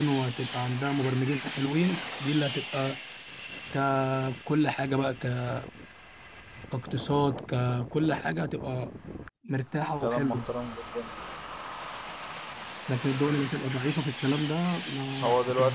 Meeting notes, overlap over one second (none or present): none